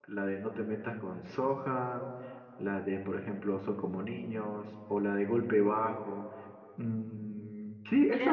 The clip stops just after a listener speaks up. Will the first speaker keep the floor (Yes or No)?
No